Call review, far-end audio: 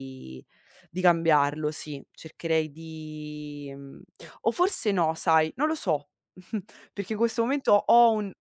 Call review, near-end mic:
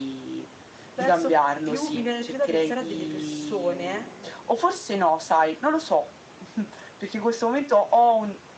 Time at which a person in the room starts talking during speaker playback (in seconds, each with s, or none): 0.9 s